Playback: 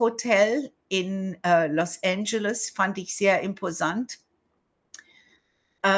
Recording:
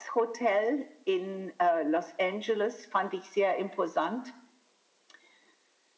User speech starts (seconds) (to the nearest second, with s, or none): none